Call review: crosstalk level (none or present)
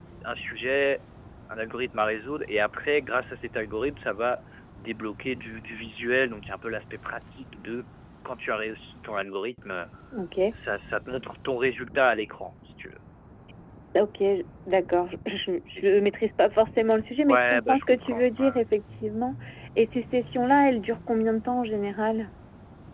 present